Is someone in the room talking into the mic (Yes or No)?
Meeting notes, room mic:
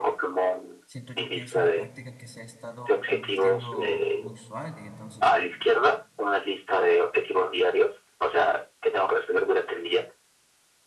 Yes